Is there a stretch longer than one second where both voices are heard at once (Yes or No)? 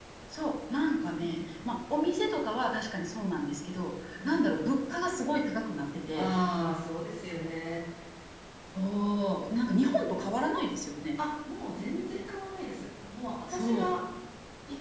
No